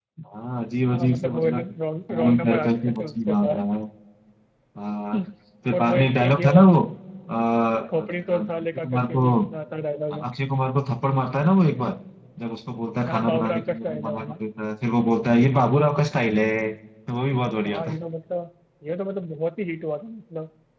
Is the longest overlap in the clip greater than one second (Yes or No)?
Yes